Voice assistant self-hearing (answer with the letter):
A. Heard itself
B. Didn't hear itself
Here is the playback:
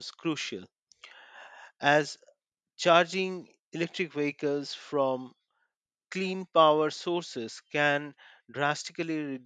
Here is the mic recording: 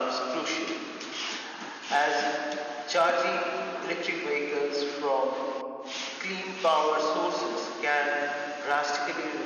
A